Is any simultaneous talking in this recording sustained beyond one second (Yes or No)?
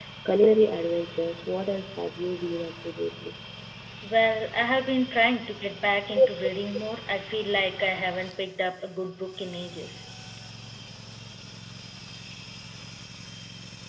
No